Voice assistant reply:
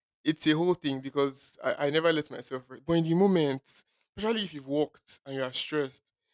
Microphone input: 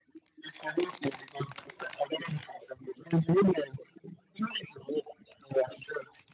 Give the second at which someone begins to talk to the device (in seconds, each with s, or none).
none